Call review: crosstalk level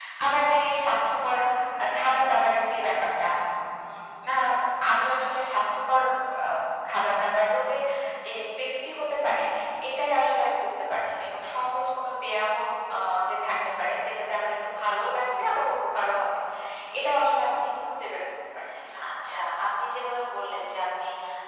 none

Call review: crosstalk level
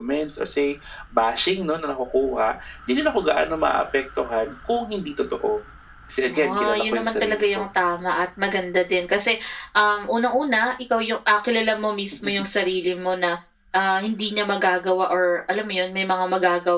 present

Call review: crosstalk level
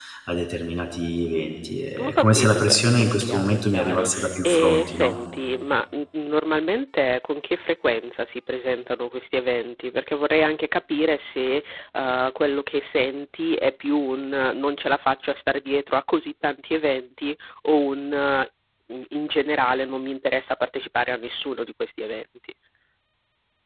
present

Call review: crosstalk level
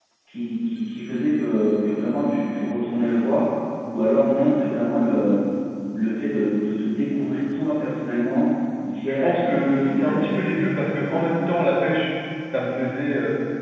present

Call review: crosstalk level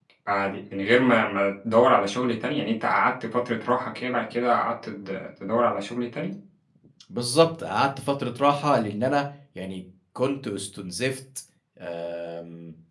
none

